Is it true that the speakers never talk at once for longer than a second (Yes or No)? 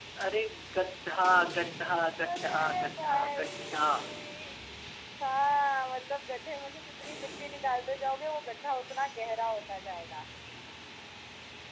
No